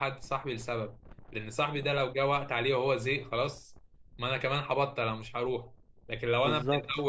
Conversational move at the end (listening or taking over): listening